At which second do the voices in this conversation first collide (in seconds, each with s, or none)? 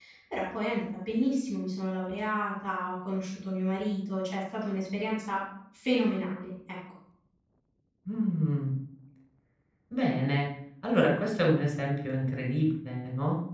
none